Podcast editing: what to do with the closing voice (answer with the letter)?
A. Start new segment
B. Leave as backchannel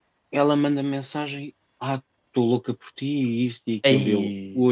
B